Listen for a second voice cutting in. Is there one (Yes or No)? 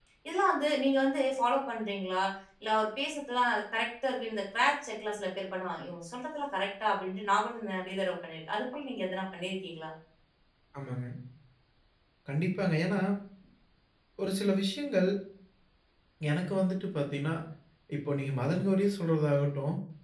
No